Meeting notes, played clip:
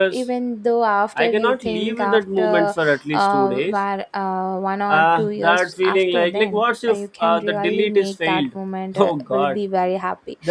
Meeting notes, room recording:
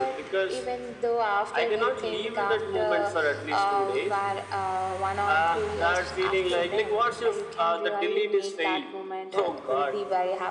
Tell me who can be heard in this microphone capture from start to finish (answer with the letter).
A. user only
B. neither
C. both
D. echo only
D